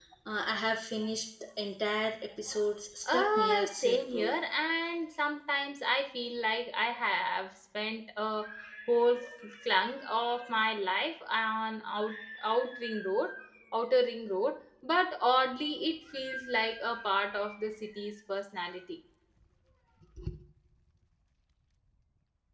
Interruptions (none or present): present